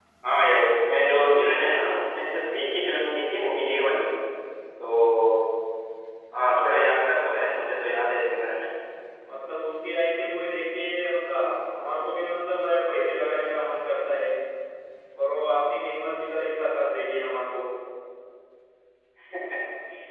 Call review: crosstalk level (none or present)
none